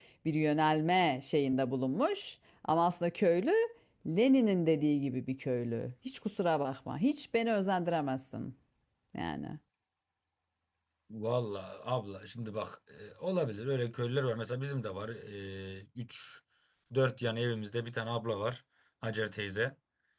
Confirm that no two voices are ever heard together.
Yes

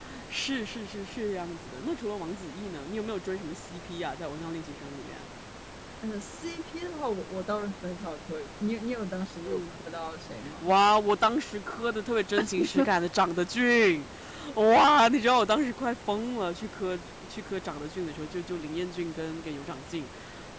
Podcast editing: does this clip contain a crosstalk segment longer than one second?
No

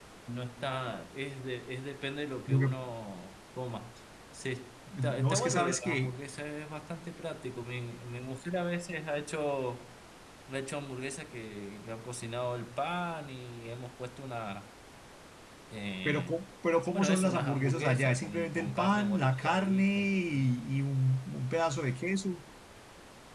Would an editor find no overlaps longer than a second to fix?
No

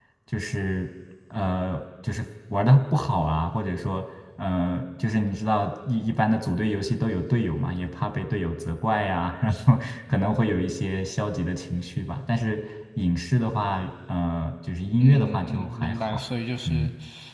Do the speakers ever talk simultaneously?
Yes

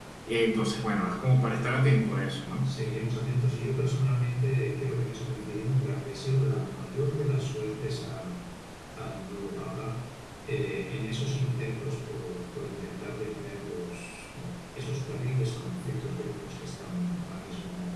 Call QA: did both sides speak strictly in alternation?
Yes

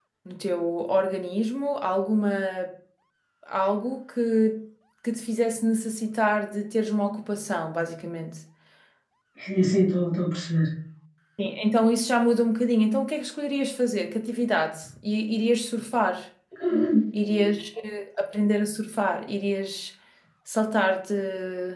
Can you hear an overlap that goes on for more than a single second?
No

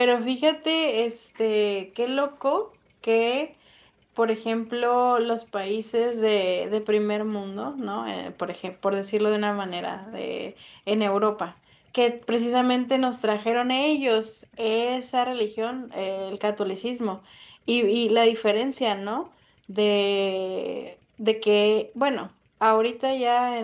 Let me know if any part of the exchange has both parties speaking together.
No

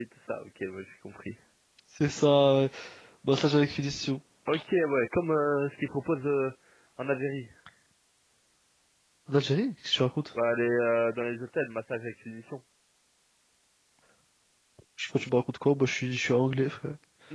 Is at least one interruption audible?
No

